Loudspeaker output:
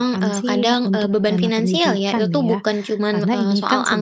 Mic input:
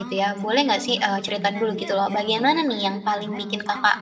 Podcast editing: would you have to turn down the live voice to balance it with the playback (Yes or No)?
Yes